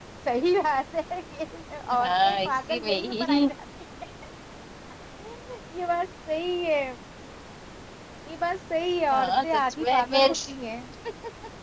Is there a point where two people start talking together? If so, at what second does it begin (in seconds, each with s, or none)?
2.1 s